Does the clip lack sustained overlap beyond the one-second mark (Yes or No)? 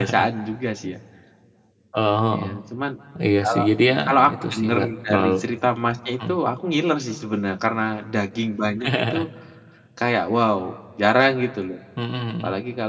No